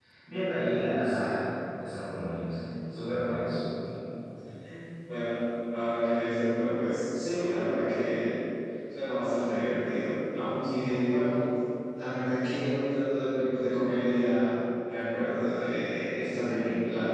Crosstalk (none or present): none